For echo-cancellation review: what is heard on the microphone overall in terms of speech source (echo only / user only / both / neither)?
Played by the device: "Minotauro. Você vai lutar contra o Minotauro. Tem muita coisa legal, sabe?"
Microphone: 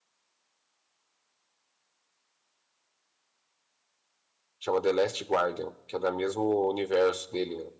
user only